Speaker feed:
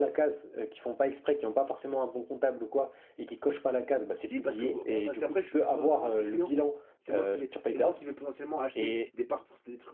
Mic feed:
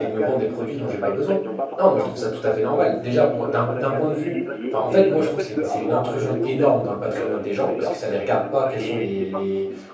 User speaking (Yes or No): Yes